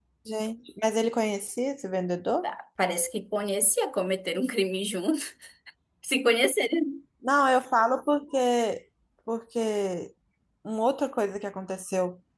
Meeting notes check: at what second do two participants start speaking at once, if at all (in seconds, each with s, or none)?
none